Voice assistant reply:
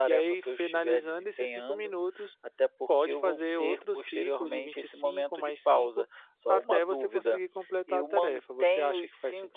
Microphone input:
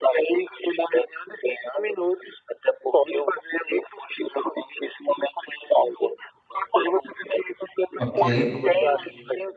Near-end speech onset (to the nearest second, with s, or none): 8 s